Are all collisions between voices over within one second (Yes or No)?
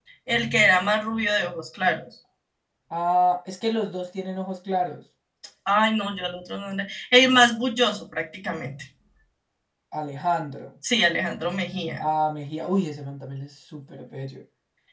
Yes